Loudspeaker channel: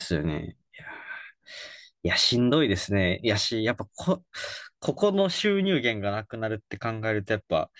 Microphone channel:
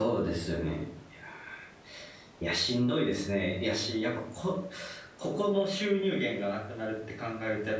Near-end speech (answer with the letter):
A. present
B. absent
B